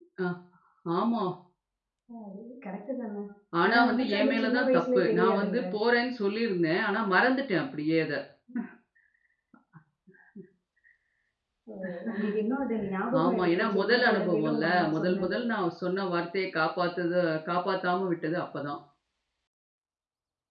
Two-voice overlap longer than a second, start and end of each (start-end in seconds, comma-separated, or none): 3.7-5.6, 13.2-15.4